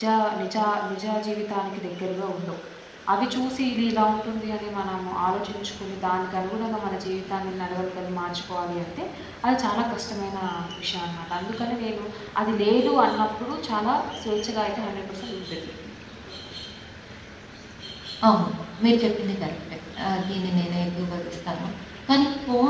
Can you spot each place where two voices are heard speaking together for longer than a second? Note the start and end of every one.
none

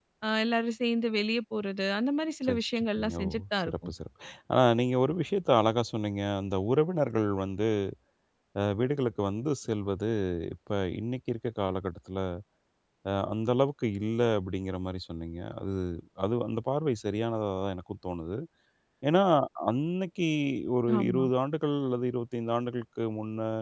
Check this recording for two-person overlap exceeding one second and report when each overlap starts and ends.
2.4-3.9

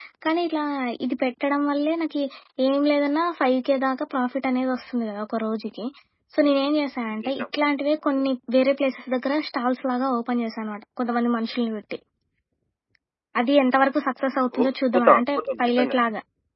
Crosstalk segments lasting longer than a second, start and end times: 14.6-16.0

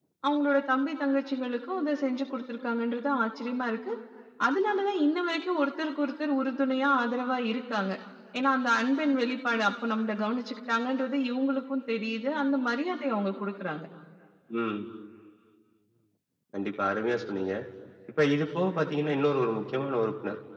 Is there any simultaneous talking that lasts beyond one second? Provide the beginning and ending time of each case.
none

